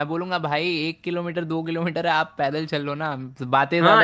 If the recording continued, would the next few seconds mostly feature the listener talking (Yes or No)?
Yes